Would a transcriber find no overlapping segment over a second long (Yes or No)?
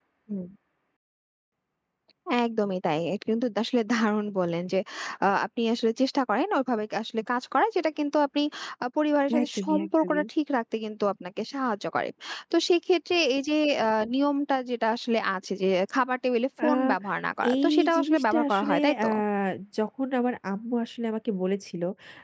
No